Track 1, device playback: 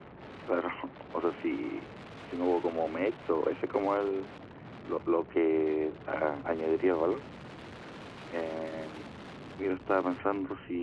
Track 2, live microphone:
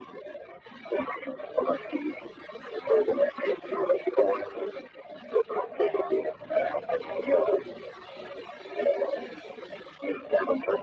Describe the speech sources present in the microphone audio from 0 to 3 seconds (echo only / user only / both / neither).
echo only